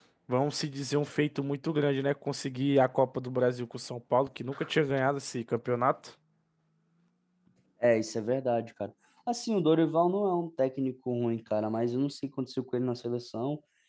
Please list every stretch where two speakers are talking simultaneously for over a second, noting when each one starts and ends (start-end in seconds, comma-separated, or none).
none